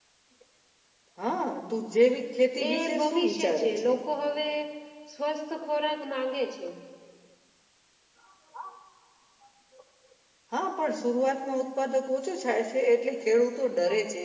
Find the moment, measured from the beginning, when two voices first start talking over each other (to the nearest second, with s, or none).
3 s